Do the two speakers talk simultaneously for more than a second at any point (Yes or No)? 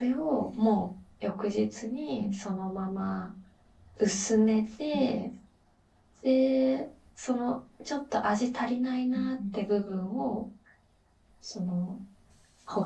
No